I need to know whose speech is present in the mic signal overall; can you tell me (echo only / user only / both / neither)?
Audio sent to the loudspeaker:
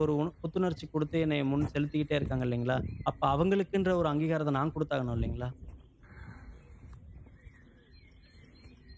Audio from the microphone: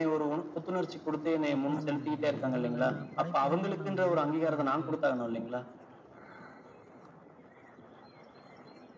both